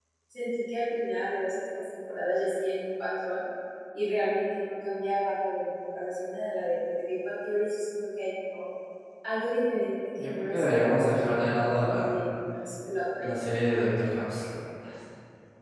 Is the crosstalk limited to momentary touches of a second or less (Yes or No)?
No